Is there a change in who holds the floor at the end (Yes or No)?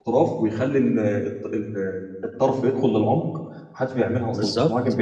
Yes